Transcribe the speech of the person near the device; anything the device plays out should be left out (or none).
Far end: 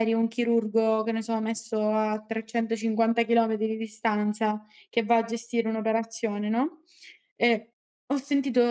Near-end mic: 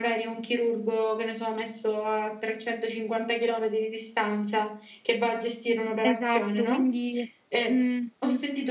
Esatto, quindi mh-mh.